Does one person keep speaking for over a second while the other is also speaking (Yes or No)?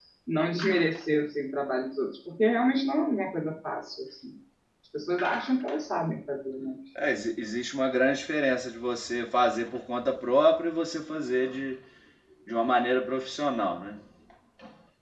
No